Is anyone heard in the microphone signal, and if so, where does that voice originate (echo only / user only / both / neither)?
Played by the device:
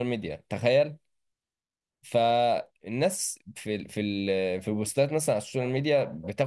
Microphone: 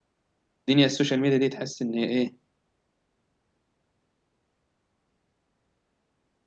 user only